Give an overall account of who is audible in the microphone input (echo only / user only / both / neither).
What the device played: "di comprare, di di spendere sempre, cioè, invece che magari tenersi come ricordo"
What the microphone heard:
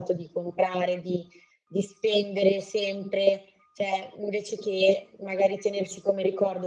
echo only